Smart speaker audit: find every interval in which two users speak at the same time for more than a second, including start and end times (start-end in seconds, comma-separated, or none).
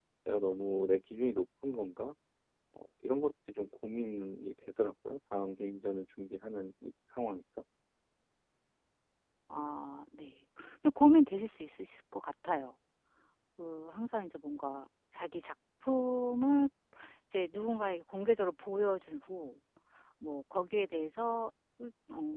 none